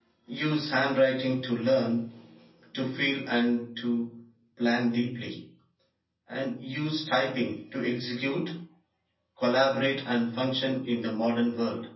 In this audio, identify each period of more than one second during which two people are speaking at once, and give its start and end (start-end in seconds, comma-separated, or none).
none